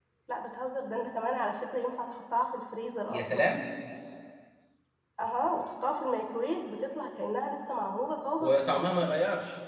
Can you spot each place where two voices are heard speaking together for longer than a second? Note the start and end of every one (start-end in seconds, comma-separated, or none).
none